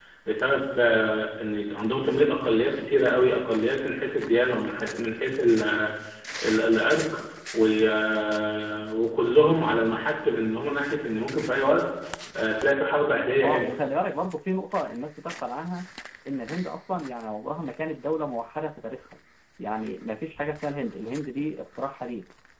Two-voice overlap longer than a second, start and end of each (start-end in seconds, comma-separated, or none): none